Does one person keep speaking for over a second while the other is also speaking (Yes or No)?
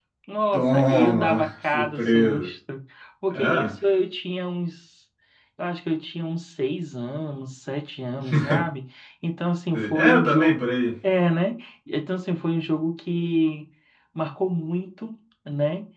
Yes